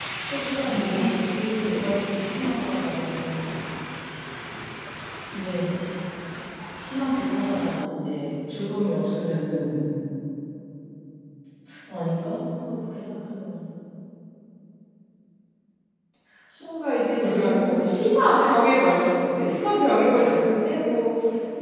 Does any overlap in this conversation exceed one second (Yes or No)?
Yes